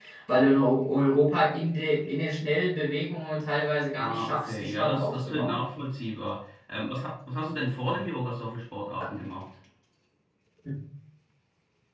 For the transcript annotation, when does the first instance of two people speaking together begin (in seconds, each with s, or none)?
4.0 s